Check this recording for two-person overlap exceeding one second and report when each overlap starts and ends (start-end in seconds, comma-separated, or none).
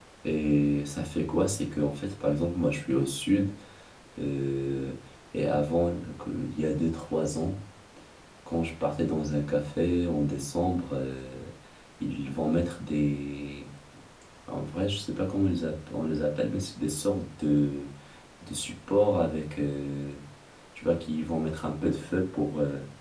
none